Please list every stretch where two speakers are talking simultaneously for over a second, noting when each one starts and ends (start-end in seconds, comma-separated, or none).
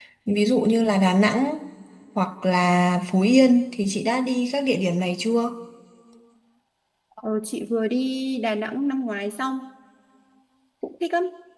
none